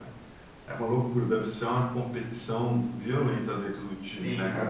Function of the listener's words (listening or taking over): taking over